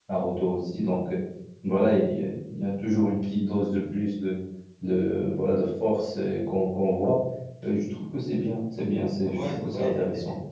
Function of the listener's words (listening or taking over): taking over